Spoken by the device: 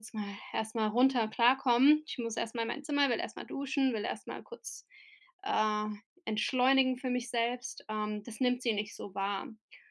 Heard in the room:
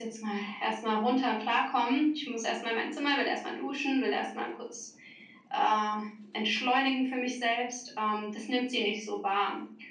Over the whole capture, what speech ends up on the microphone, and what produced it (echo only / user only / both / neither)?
echo only